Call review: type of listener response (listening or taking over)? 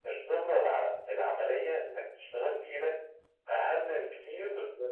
listening